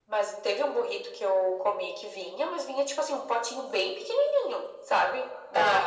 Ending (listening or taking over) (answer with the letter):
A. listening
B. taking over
B